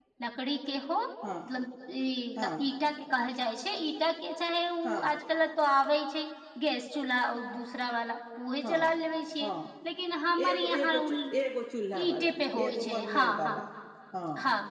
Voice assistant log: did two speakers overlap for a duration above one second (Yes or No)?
Yes